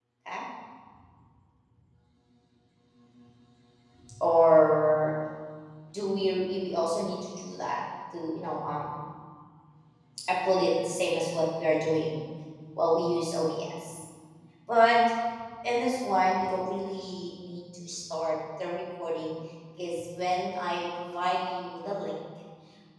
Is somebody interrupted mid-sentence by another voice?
No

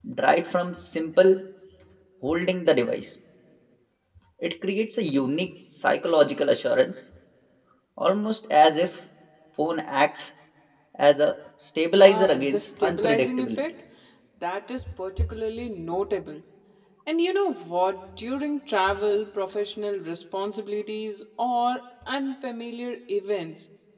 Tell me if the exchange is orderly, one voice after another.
No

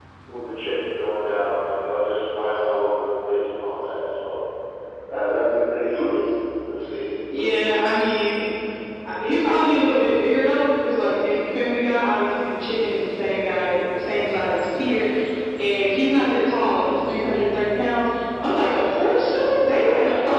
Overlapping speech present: No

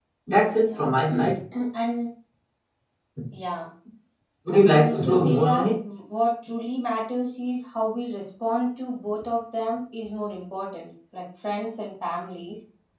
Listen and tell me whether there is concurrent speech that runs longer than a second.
Yes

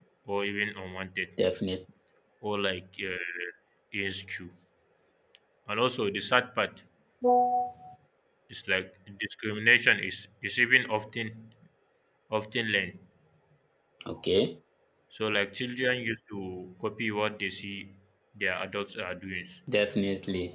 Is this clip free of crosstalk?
Yes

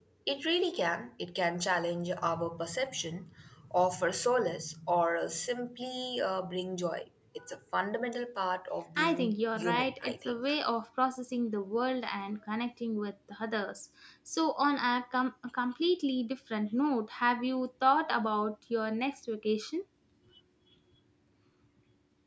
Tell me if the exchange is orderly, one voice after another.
No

